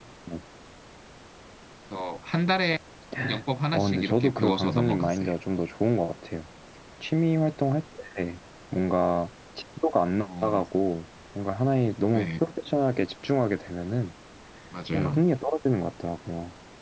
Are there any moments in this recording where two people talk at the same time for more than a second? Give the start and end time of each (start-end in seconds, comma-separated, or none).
3.7-5.3